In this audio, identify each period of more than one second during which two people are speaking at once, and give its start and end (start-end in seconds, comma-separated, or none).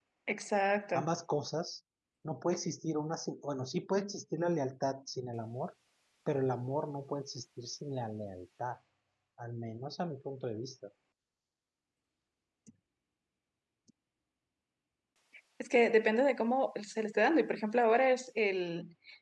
none